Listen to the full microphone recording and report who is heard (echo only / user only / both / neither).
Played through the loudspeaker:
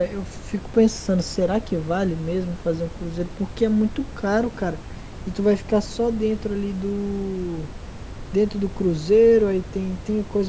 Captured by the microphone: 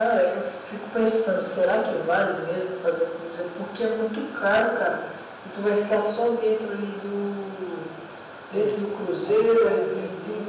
both